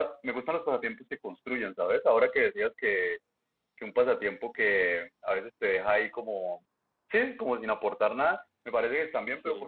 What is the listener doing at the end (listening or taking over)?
listening